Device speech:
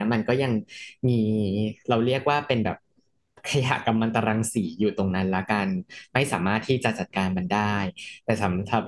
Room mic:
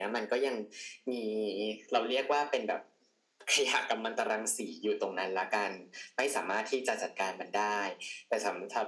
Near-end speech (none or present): none